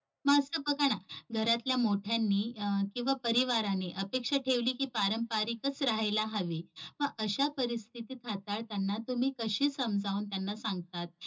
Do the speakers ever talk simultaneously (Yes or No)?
No